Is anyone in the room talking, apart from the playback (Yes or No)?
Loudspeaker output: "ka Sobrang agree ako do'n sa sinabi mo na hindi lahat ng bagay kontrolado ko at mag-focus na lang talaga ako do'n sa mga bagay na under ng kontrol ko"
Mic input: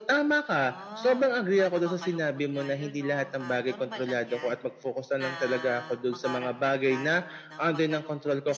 Yes